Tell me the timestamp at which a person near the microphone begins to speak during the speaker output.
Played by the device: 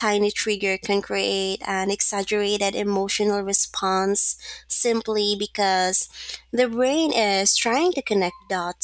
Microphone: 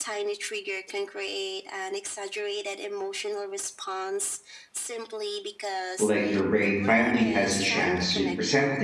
6.0 s

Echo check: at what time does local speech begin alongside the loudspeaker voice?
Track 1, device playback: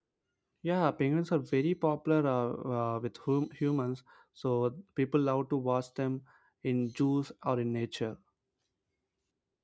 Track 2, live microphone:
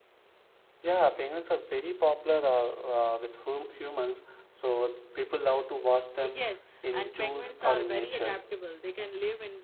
6.2 s

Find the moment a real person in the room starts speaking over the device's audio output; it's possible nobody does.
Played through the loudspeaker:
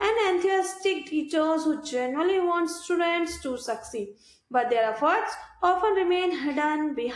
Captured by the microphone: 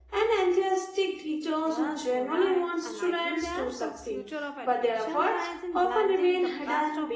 1.6 s

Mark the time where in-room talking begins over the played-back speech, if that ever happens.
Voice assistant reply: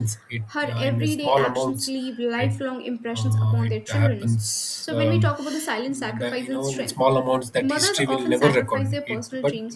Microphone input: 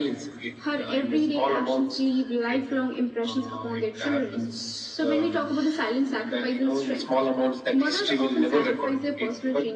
none

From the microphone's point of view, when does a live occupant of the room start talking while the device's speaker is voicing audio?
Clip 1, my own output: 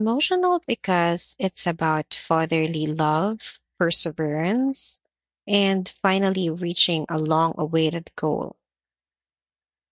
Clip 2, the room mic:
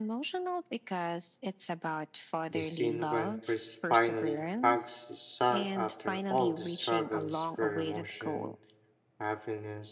2.5 s

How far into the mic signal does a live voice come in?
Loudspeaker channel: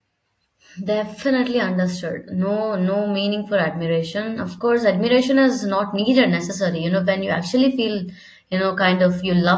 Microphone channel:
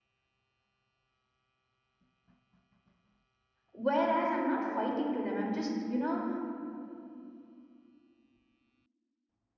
3.7 s

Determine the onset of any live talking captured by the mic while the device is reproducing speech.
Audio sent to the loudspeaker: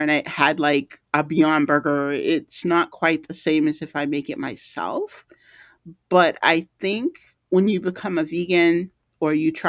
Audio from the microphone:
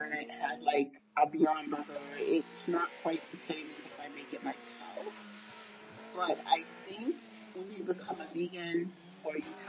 none

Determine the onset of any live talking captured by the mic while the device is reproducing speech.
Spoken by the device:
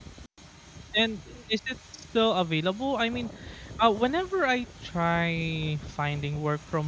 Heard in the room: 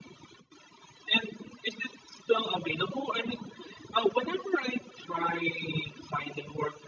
none

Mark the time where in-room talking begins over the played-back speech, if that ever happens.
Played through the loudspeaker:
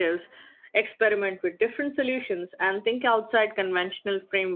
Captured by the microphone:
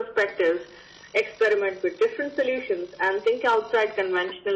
none

